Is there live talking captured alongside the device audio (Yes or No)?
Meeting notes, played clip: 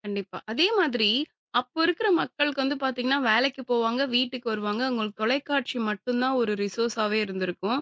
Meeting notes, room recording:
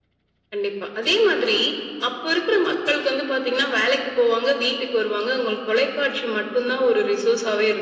No